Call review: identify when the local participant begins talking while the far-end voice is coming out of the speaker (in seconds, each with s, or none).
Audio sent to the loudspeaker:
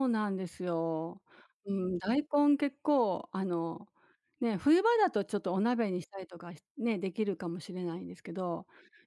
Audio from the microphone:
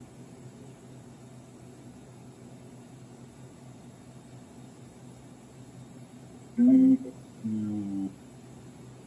6.6 s